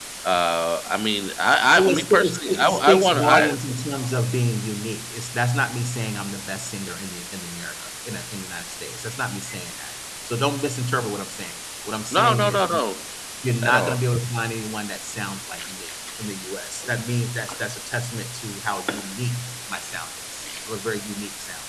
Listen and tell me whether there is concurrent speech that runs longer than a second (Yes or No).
Yes